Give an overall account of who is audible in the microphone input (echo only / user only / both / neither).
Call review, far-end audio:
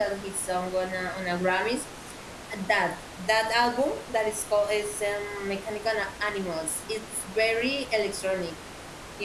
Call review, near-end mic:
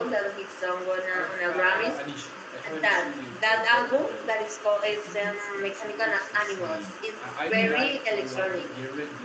both